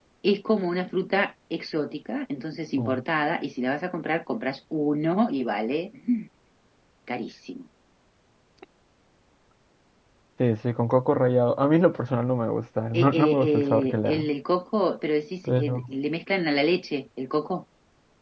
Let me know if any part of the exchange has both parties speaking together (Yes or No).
Yes